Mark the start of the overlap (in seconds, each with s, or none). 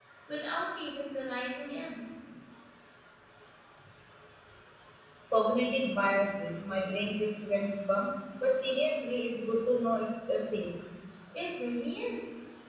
none